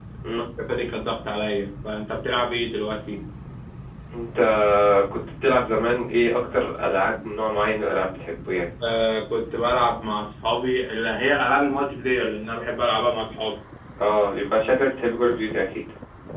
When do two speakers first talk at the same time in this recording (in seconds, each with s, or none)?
none